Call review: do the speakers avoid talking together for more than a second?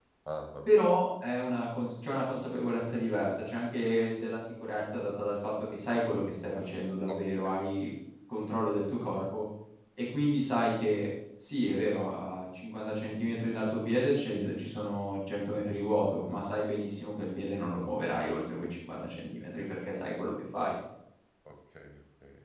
Yes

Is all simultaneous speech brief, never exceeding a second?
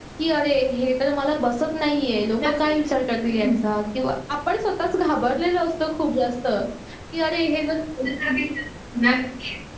Yes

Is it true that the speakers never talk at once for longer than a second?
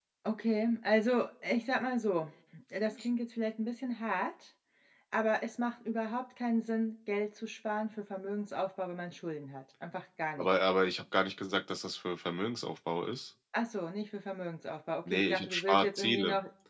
No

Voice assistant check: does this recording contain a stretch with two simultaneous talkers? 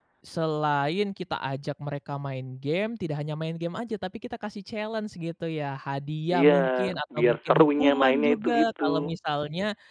Yes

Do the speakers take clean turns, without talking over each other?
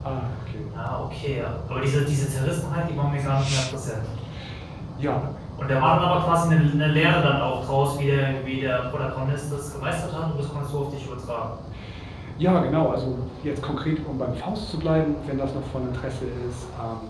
Yes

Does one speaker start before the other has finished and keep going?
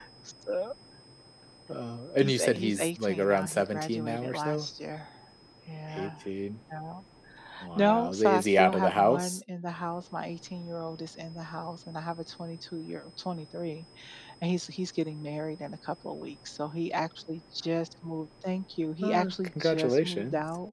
Yes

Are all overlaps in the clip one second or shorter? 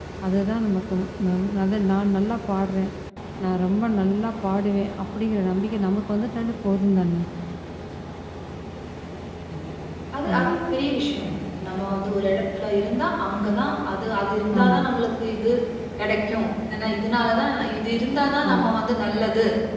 Yes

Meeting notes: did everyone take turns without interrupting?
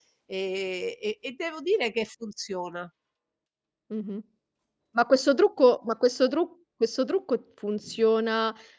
Yes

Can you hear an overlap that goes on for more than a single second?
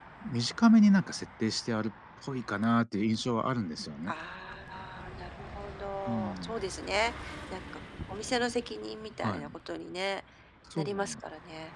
No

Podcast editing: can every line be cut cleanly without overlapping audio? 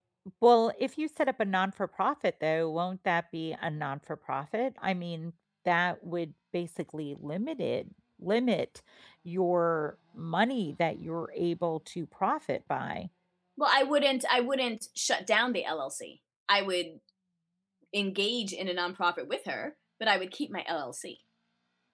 Yes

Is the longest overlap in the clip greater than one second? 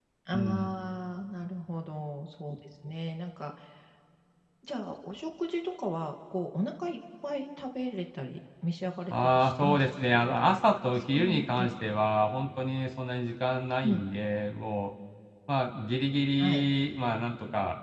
Yes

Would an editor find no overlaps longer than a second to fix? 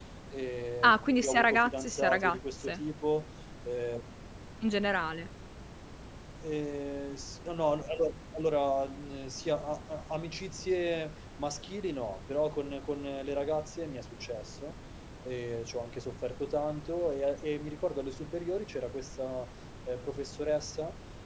No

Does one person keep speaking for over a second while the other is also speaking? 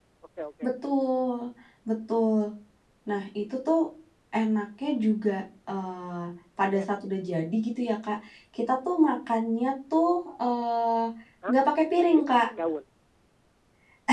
No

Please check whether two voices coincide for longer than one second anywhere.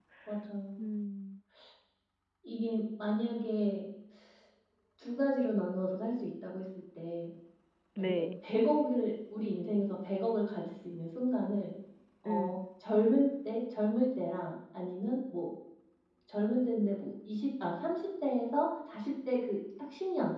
No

